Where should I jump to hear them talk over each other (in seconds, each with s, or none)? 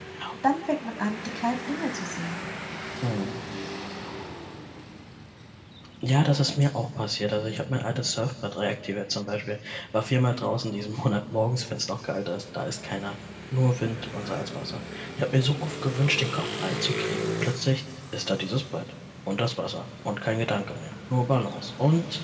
none